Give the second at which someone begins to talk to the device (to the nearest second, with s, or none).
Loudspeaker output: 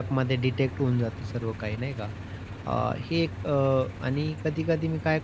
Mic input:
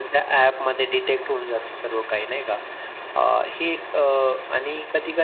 none